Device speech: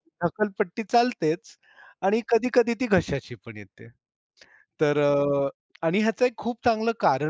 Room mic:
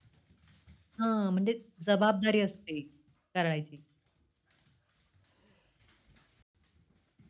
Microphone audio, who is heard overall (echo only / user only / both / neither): user only